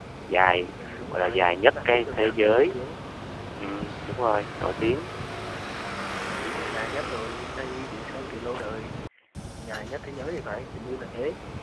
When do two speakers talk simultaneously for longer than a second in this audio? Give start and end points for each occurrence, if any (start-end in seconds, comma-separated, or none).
1.1-2.8